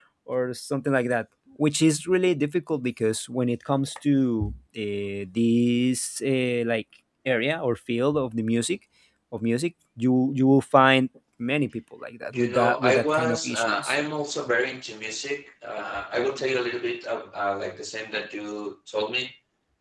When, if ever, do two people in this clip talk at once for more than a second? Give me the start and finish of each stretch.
12.3-13.9

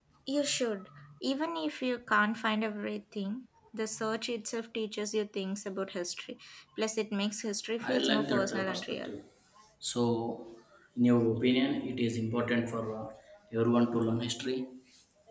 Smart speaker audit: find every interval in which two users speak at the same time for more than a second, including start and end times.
7.8-9.1

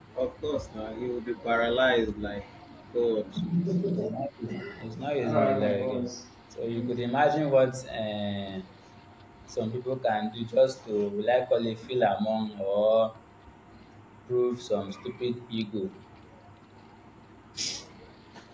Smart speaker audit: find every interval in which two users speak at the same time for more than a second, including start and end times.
none

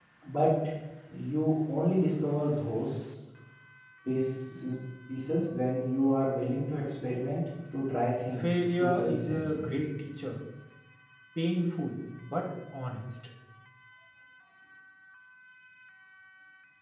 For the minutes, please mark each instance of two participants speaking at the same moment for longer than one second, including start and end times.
8.4-9.7

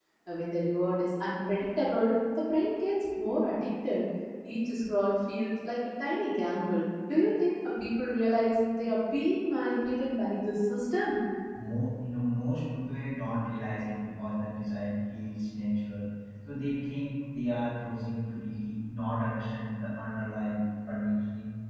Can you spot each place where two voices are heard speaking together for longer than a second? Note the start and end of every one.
none

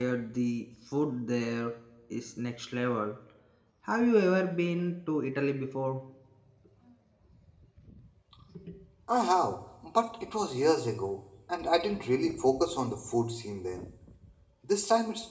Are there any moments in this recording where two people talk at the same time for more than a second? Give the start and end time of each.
none

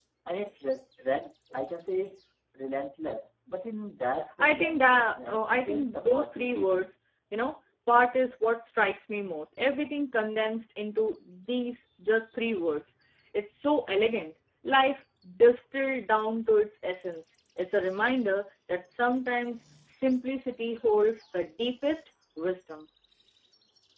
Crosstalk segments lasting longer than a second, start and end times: 4.4-6.9

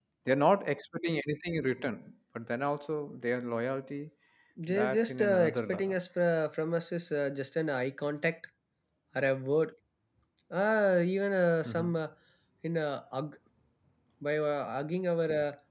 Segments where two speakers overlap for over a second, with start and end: 4.7-6.0

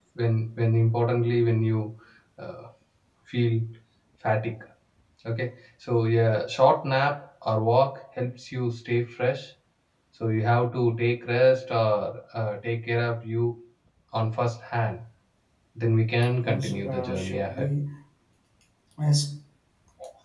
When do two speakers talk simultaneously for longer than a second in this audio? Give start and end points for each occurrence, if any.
16.4-17.7

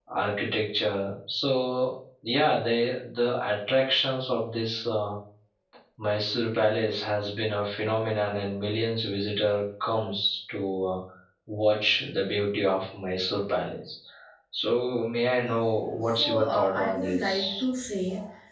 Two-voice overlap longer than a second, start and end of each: 16.2-17.6

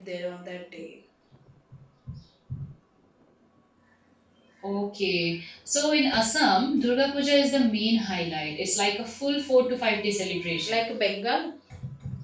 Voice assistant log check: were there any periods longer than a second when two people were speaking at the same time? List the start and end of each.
none

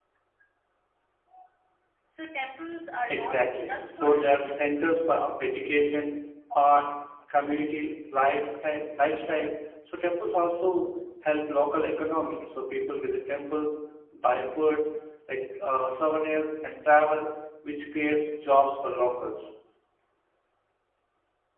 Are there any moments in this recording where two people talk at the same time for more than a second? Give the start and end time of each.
3.1-4.5

